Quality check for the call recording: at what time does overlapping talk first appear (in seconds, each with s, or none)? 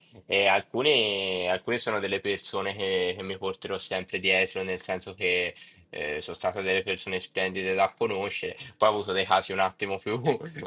none